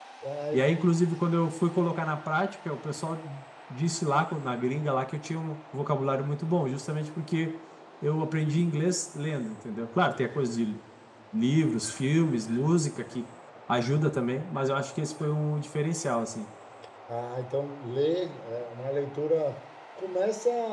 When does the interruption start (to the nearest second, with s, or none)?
none